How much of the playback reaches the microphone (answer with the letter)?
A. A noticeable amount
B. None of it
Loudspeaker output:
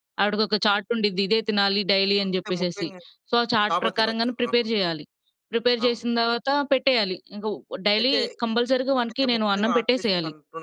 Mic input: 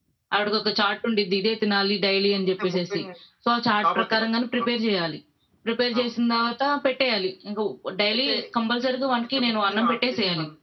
A